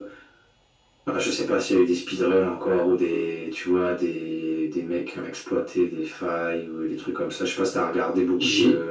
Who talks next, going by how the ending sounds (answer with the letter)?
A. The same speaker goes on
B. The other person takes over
B